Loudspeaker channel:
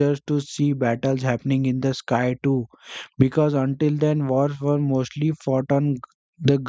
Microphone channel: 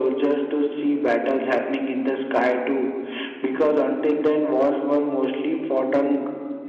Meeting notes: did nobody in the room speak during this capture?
Yes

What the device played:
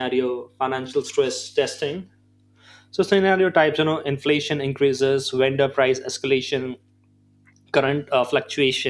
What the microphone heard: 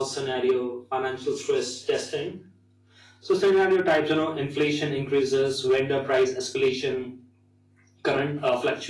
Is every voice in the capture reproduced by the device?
Yes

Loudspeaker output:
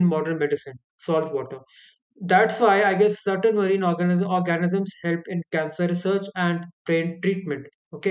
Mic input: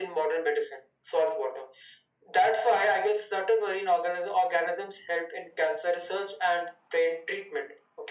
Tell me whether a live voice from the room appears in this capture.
No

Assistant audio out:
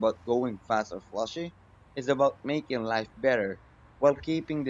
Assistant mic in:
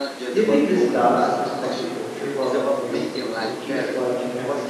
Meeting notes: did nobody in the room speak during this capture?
No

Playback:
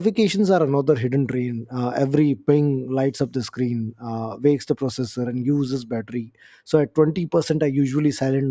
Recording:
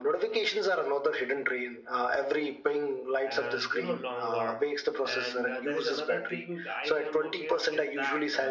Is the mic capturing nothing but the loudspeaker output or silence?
No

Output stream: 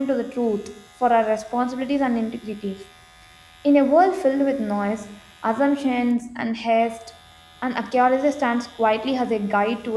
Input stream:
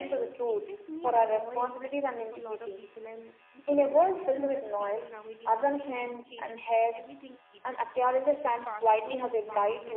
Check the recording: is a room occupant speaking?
Yes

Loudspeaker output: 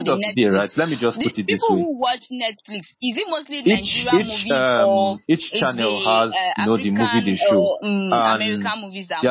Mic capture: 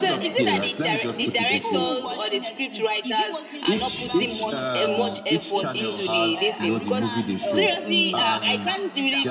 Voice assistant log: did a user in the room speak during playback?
Yes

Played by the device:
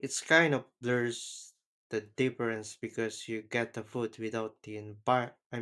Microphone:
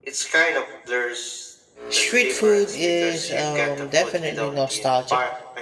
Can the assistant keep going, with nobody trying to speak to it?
No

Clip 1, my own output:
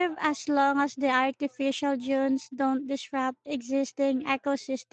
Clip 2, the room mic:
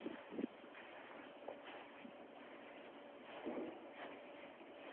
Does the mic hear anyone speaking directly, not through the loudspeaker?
No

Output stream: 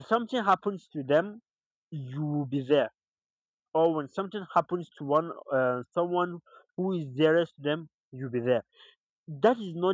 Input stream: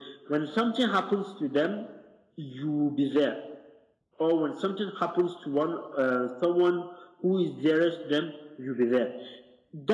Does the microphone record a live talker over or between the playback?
No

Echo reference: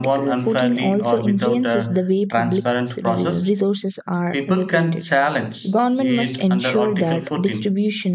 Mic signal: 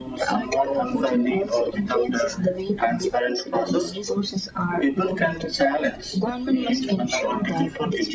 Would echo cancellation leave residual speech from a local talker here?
No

